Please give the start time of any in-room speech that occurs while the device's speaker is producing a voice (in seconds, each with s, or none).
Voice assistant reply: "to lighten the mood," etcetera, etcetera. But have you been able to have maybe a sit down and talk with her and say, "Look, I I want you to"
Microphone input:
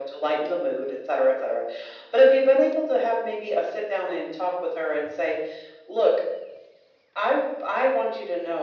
none